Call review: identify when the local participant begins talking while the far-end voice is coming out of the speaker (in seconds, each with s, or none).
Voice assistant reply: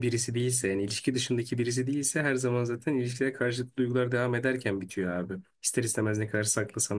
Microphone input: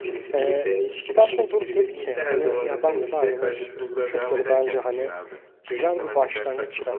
0.3 s